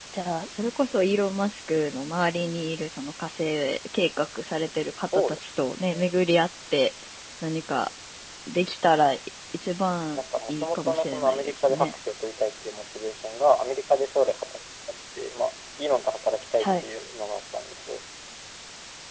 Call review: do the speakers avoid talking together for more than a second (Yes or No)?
No